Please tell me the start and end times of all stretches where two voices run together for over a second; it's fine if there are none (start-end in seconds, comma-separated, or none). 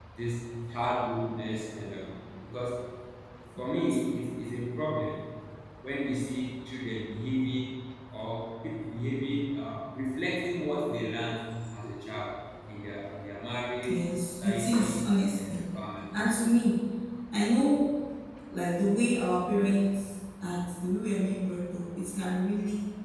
13.8-15.7